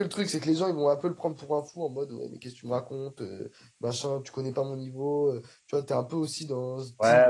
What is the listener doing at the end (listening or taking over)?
taking over